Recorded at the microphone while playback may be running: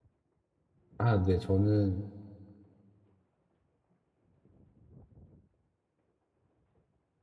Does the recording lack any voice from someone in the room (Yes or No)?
No